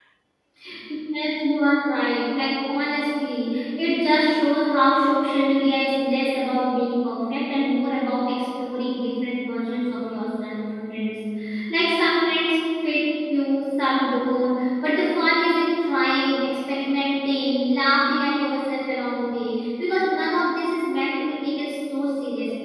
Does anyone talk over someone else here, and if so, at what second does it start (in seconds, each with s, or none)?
none